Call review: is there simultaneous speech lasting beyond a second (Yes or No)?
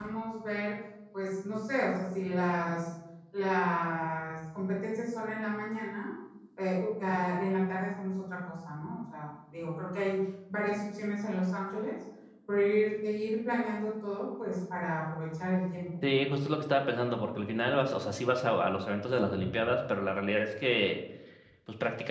No